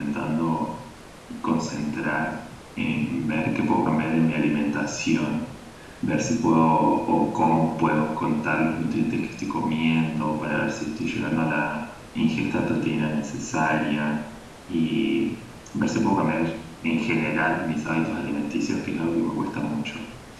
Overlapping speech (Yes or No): No